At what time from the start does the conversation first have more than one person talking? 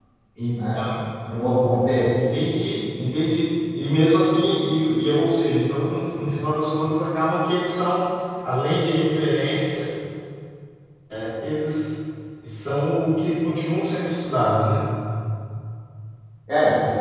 none

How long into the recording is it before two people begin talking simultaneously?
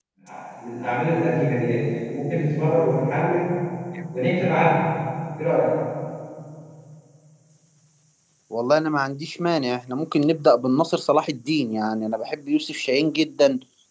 none

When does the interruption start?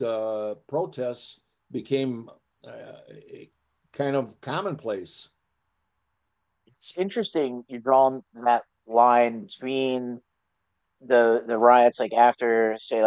none

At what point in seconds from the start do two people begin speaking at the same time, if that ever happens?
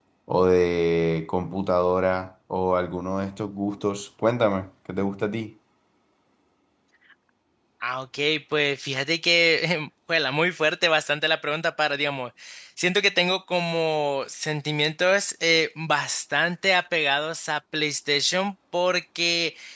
none

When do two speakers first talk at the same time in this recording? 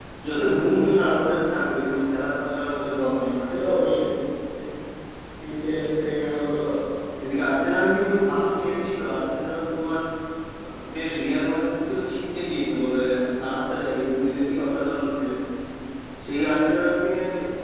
none

